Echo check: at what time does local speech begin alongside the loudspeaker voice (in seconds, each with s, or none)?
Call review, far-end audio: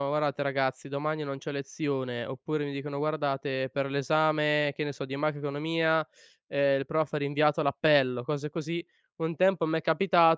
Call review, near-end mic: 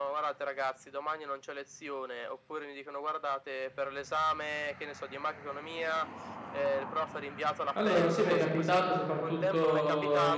7.8 s